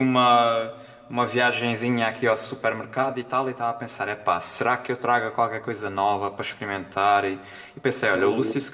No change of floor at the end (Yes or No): Yes